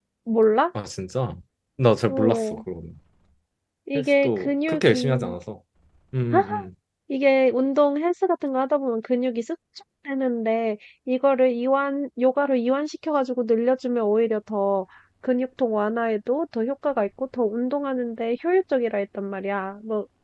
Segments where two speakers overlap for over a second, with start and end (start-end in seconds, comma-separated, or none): 4.0-5.4